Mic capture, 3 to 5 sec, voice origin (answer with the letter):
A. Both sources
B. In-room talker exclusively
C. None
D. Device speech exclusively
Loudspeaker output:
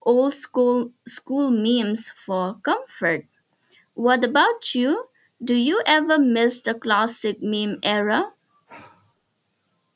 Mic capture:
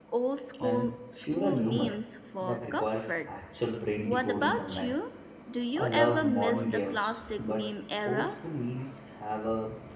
A